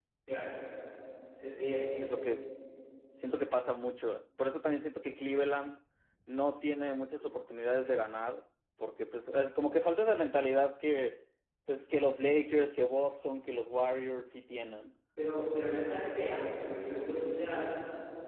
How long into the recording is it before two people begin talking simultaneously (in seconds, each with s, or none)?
none